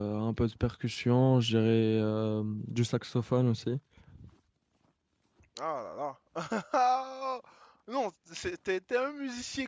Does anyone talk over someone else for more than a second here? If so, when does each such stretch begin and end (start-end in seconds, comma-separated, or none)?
none